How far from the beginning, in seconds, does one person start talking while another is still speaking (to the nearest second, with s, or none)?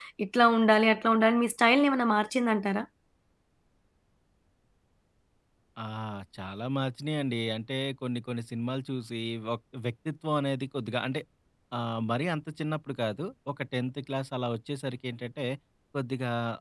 none